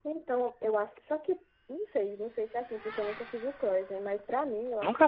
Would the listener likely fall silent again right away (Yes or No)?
Yes